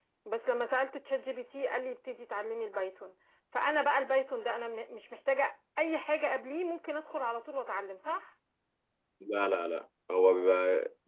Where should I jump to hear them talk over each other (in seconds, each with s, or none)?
none